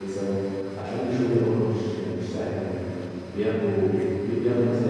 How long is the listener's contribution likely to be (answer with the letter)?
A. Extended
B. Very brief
B